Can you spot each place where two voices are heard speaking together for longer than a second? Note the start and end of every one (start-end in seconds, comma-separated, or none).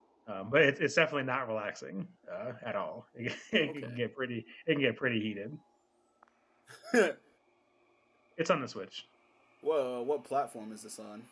none